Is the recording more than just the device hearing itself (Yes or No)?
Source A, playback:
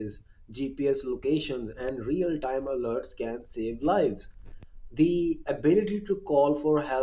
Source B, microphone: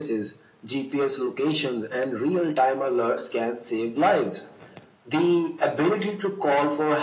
No